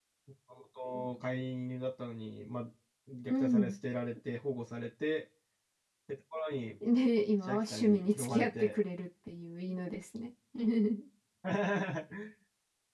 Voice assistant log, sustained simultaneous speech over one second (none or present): present